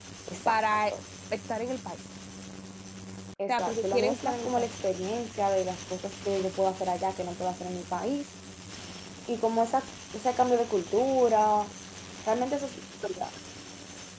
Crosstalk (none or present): present